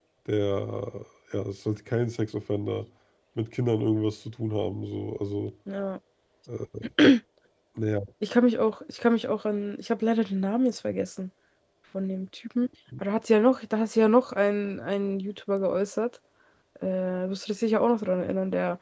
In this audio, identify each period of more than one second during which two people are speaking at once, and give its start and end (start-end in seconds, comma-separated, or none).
none